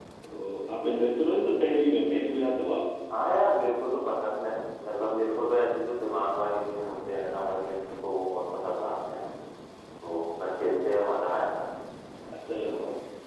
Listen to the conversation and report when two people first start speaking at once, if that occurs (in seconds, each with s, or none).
none